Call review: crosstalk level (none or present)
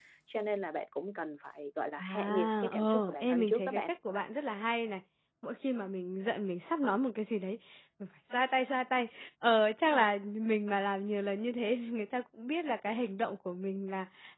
present